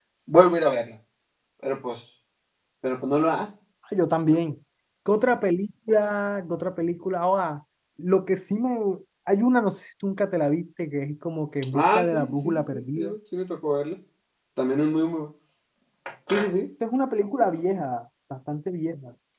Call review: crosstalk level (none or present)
present